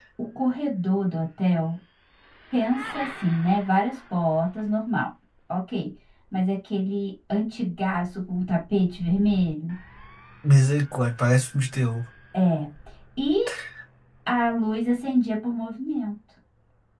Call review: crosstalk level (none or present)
none